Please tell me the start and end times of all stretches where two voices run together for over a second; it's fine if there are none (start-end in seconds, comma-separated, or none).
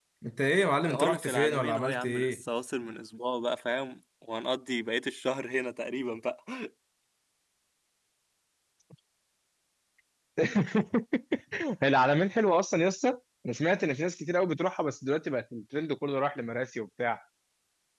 0.9-2.4